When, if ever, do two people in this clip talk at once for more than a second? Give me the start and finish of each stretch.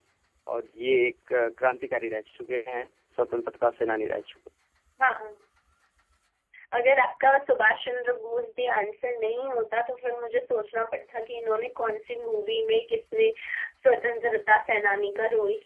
none

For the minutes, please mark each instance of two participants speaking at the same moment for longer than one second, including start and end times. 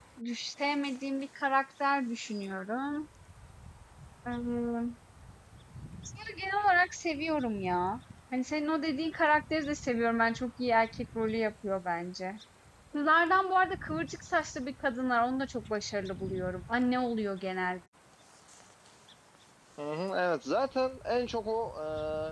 none

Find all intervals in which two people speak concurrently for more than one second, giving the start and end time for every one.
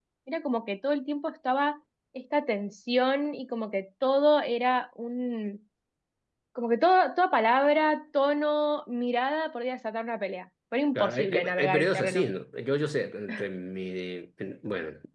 11.0-12.3

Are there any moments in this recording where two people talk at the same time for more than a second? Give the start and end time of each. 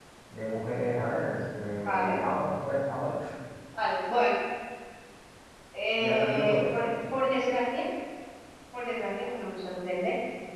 6.0-7.2

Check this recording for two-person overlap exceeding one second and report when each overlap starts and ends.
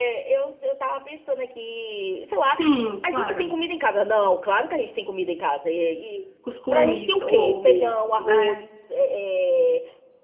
6.7-8.6

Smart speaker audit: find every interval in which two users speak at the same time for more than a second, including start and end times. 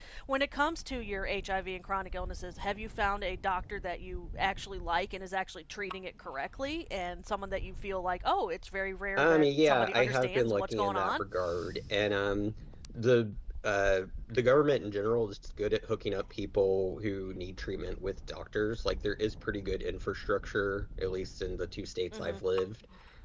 9.2-11.2

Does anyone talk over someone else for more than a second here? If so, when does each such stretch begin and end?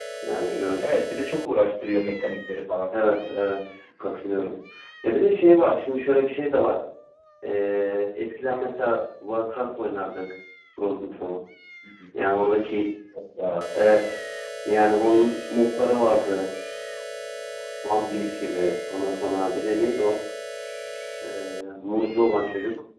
none

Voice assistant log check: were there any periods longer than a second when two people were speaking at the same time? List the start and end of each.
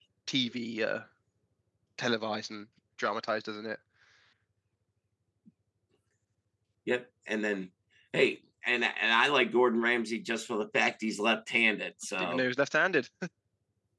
none

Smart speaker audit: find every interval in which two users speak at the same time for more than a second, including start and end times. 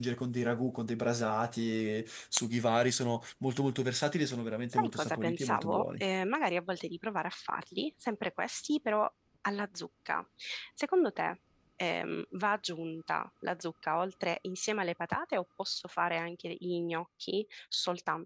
4.7-6.0

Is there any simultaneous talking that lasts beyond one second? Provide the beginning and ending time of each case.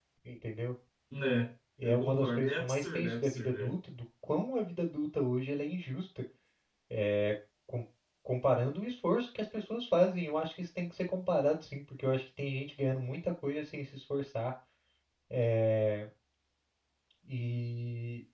1.8-3.7

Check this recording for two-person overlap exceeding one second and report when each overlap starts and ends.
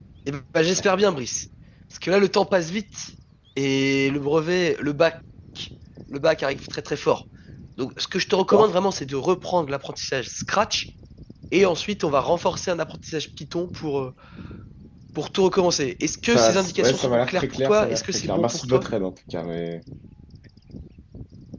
16.2-18.8

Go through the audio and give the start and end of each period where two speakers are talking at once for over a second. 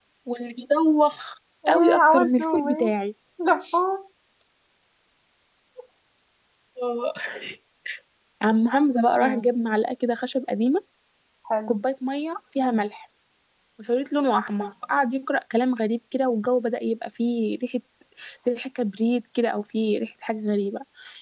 1.7-2.9

